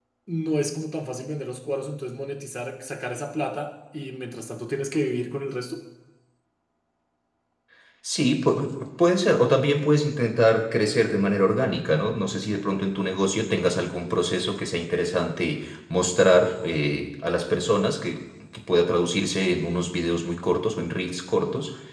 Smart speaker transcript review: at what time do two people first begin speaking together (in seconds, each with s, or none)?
none